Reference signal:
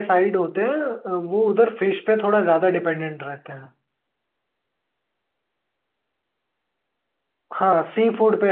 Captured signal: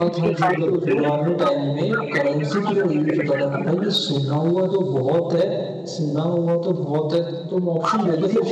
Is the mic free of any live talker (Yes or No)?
No